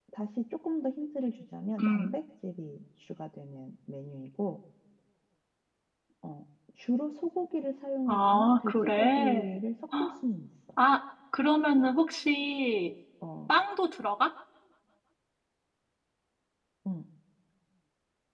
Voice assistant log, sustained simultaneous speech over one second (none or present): present